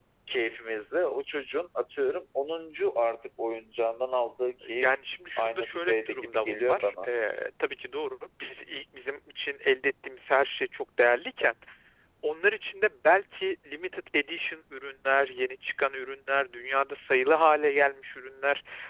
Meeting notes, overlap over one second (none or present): present